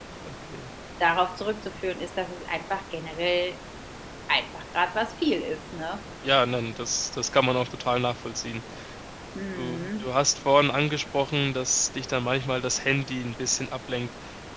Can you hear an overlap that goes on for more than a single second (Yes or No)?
No